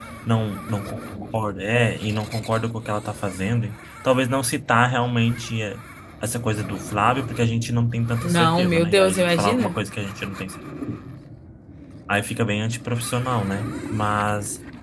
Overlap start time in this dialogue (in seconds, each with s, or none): 8.2 s